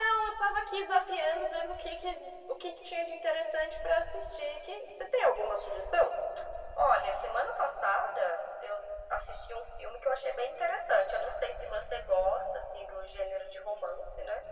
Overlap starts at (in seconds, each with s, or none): none